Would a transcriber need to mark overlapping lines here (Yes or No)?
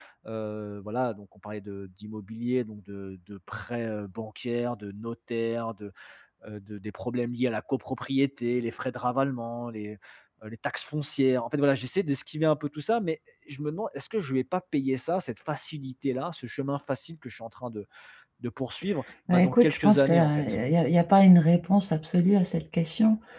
Yes